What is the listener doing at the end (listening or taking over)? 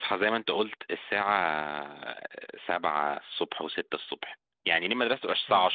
listening